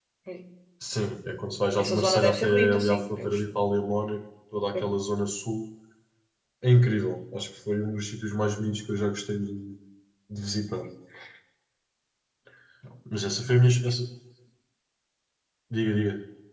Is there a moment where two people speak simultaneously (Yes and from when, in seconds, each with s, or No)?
Yes, from 1.8 s